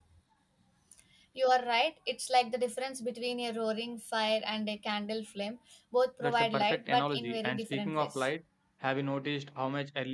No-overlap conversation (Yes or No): No